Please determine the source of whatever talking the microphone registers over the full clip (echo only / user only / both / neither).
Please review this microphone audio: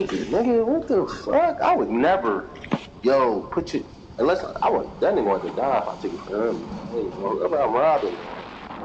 echo only